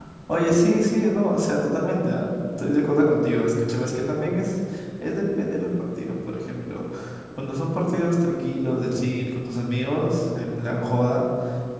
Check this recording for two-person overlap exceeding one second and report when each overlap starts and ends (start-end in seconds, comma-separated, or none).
none